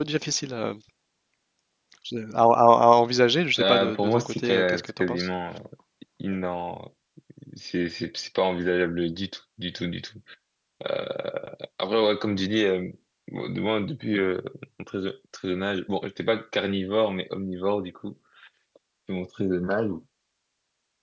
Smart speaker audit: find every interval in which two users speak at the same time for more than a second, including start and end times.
3.6-5.3

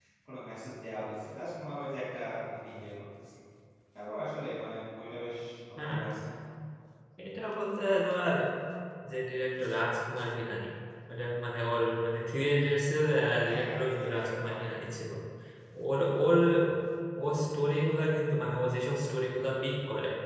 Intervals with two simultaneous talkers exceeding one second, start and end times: 13.5-14.7

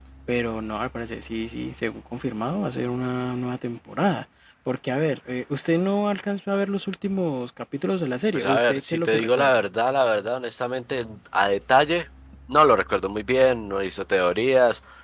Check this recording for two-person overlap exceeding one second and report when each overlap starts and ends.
8.3-9.6

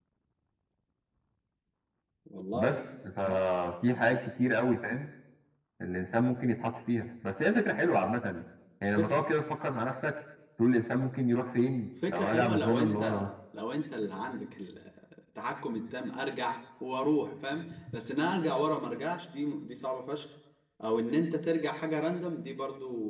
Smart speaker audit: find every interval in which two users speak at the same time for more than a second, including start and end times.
12.1-13.3

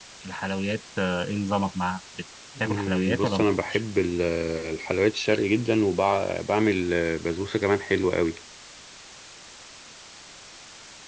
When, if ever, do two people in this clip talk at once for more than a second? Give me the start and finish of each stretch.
2.6-3.8

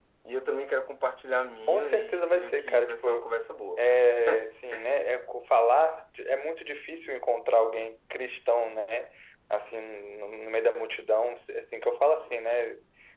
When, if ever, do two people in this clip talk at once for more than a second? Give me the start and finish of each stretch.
1.7-3.2

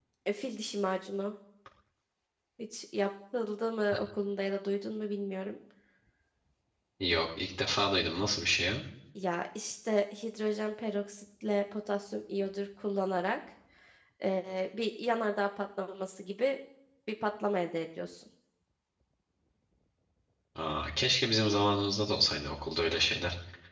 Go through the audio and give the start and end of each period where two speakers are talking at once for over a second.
none

